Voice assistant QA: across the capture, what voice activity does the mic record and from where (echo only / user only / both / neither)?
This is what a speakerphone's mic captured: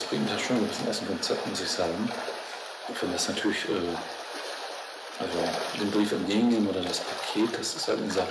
echo only